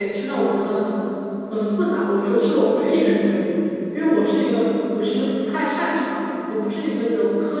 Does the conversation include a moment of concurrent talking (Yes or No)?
No